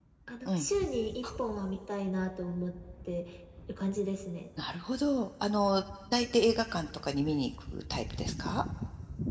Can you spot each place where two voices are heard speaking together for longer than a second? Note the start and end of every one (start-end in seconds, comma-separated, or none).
none